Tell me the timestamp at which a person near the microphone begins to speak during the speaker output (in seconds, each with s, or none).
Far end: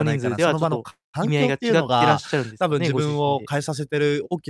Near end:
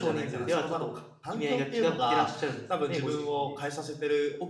none